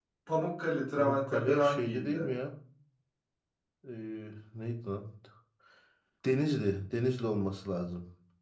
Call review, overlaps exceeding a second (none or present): present